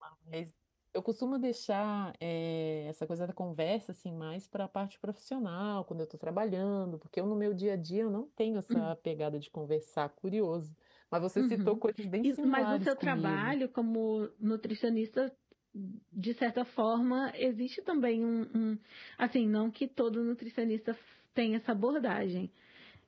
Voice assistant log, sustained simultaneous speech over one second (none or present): present